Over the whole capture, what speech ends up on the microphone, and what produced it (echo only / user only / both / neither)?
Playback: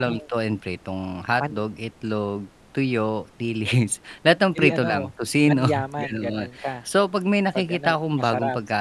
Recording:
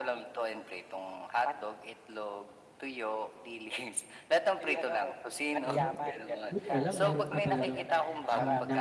both